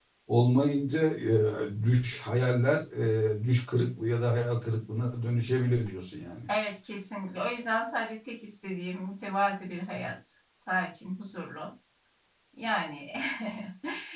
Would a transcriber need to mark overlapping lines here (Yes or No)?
No